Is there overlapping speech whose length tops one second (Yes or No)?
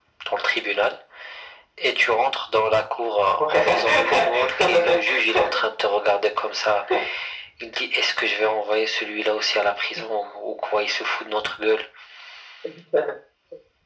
Yes